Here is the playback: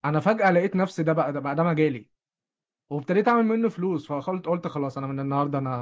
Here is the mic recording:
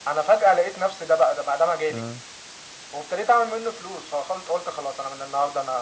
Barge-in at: 1.9 s

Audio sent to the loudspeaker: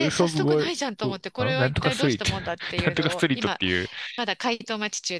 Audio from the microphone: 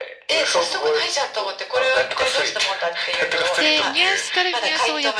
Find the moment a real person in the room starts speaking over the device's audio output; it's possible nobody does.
3.6 s

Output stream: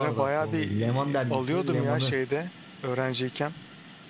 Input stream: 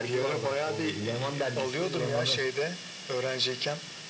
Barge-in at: none

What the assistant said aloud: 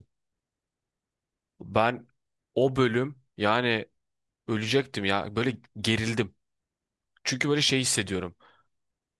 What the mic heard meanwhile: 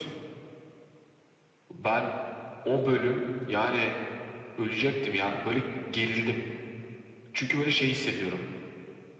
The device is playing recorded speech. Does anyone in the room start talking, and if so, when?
none

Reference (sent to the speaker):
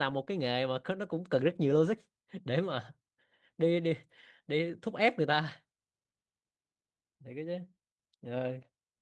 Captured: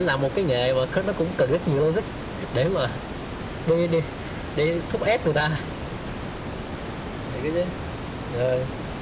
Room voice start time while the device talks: none

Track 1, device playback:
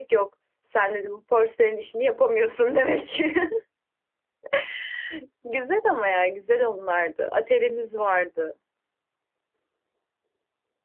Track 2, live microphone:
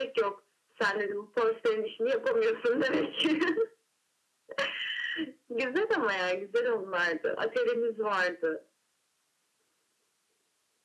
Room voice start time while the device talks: none

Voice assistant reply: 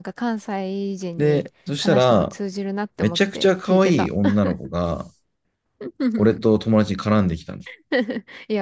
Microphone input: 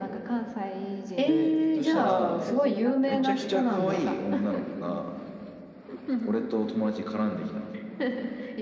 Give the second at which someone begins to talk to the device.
1.1 s

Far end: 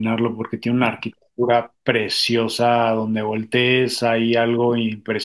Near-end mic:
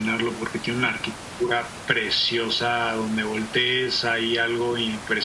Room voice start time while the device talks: none

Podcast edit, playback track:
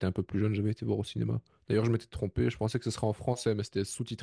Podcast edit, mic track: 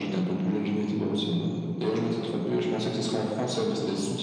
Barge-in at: none

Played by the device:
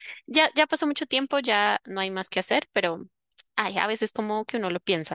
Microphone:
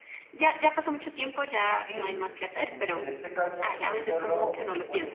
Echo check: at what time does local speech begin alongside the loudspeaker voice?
1.7 s

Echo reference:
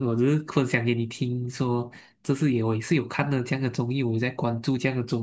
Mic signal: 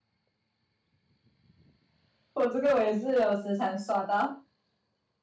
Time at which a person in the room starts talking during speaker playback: 2.3 s

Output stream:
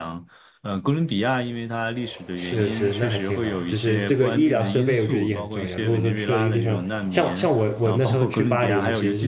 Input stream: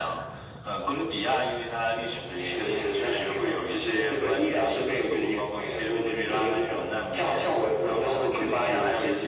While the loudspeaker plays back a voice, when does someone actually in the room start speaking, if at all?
none

